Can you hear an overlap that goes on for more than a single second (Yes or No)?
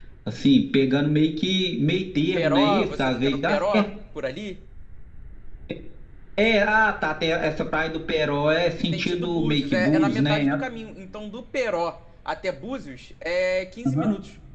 Yes